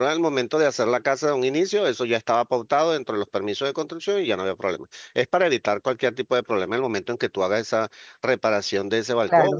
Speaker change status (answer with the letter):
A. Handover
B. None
A